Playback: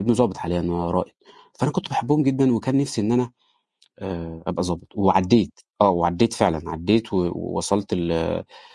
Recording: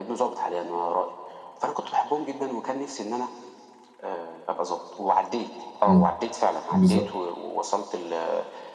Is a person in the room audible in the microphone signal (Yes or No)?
Yes